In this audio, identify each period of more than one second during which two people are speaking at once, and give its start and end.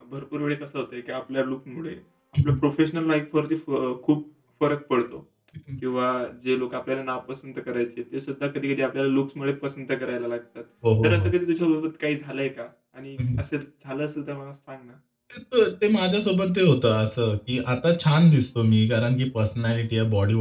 none

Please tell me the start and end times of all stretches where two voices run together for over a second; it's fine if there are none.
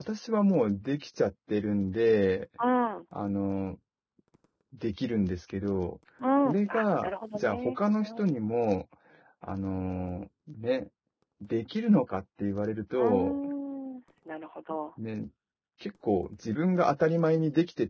6.4-8.4

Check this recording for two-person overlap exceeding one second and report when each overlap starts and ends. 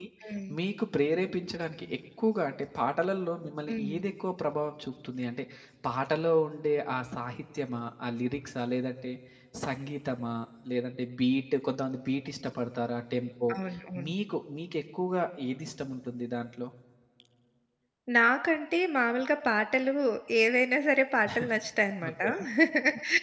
none

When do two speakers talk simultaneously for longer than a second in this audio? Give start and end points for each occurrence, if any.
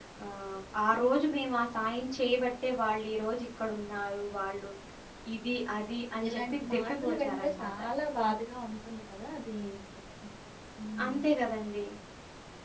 6.3-7.7

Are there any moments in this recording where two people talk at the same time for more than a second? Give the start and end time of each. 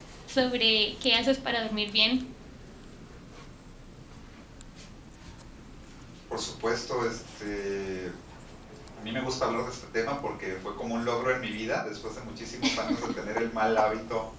none

